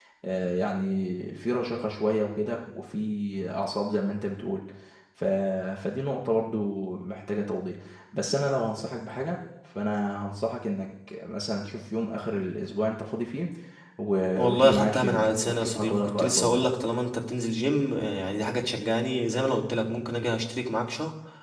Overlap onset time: 14.3 s

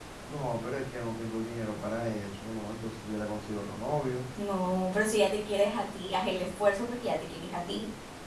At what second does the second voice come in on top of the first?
none

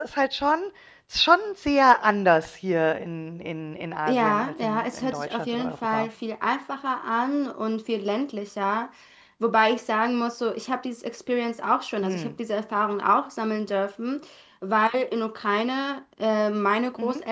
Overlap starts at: 4.1 s

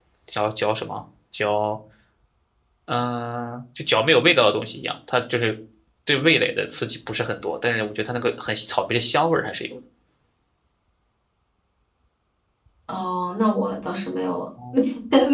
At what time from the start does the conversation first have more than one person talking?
none

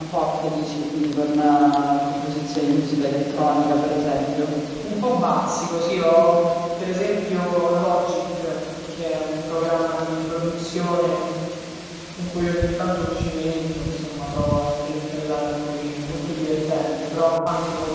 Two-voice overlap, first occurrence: none

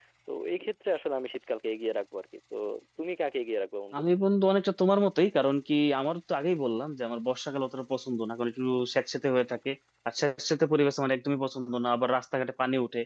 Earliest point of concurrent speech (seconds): none

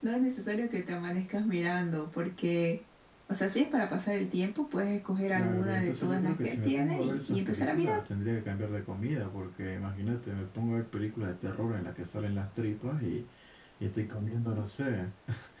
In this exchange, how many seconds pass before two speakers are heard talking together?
5.3 s

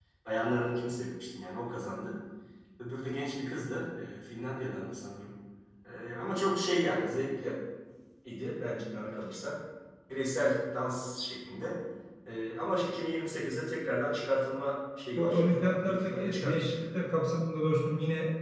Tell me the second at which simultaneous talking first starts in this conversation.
15.2 s

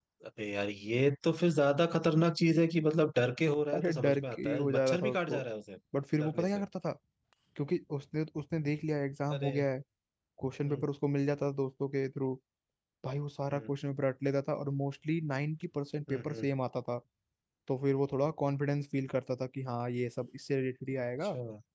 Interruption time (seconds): 3.7 s

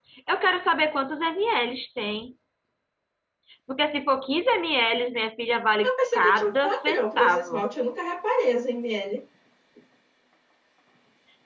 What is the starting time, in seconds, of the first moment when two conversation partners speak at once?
5.8 s

